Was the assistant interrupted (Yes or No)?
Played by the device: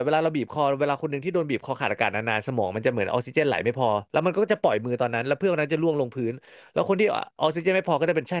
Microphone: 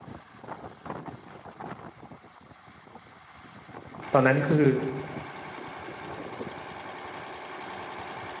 Yes